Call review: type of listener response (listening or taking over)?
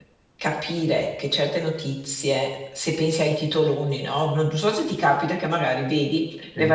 listening